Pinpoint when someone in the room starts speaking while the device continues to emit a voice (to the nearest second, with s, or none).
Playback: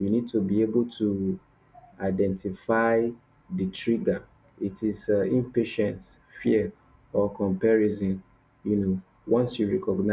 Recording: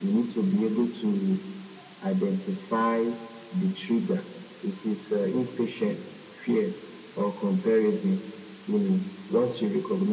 none